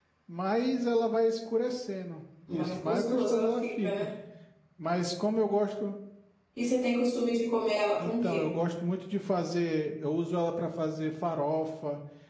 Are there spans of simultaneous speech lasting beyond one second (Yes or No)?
Yes